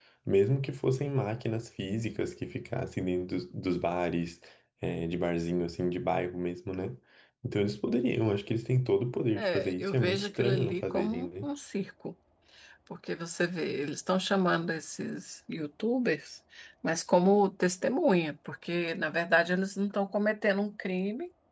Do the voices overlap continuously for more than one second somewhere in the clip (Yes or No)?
Yes